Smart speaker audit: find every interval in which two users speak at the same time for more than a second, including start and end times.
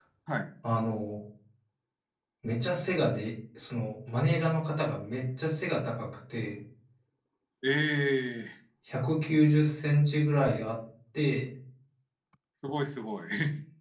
none

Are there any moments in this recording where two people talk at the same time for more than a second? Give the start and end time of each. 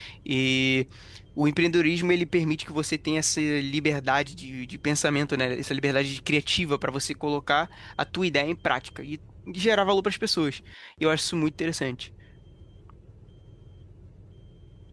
none

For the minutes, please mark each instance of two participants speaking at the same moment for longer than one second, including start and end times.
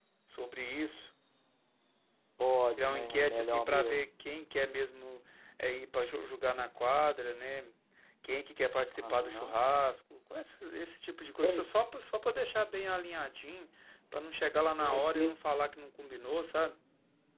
2.8-4.0

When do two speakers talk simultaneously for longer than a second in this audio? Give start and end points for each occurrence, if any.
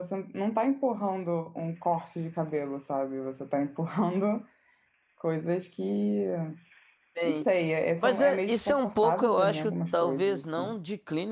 8.0-10.7

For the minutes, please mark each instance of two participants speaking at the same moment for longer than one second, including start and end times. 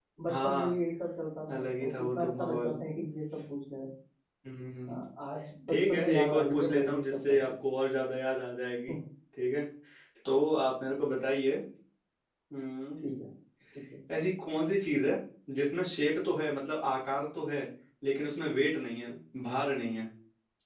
1.5-2.8, 5.7-7.4

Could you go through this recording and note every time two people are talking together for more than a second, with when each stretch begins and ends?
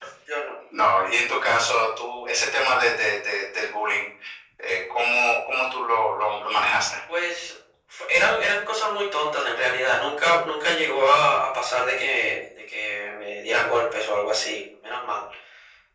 none

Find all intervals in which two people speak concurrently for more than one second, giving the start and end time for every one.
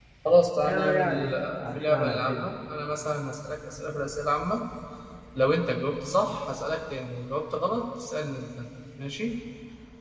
0.7-2.5

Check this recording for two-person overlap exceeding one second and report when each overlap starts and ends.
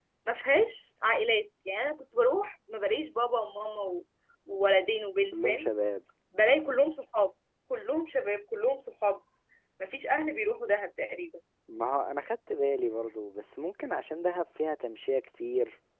none

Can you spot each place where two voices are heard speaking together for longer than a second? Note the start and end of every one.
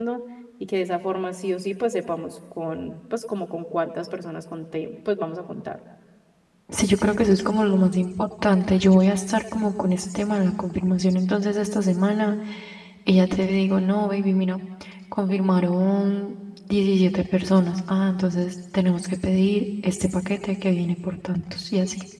none

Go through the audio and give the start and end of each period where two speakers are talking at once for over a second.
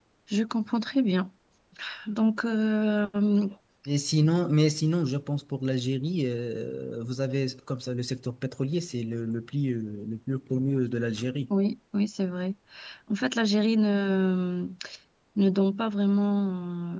none

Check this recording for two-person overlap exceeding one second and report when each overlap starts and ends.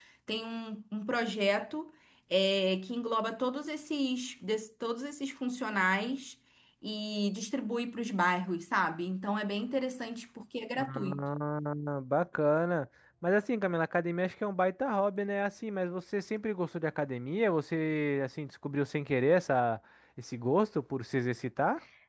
none

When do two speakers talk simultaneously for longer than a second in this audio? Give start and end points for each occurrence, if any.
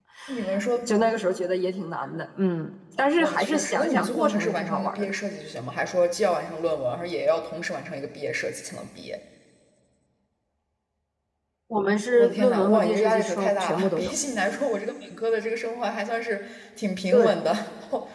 3.2-5.1, 12.2-14.1

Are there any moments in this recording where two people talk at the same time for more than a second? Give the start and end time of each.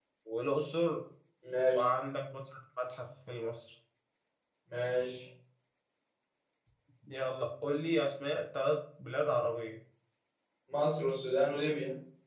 none

